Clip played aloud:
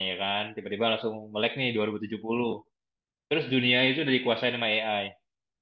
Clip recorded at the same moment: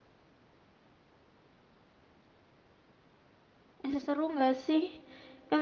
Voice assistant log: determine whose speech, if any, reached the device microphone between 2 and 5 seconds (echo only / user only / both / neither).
user only